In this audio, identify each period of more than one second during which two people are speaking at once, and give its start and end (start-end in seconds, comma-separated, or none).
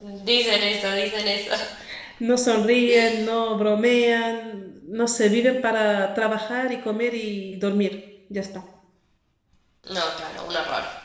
none